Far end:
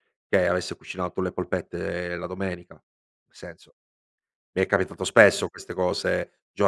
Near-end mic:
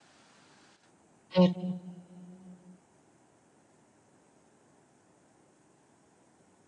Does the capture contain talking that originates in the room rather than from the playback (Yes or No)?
Yes